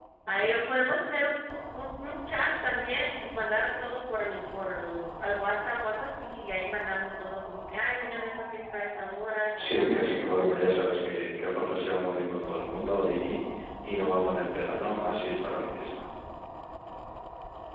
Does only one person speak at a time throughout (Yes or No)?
No